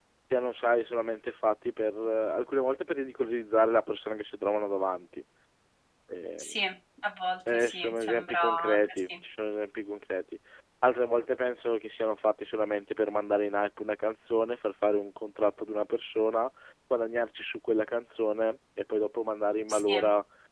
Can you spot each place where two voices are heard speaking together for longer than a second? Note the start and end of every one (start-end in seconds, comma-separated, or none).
7.5-9.1